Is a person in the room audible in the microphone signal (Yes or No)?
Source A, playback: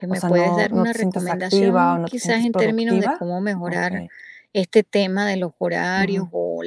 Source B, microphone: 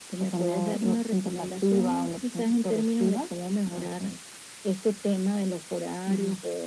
No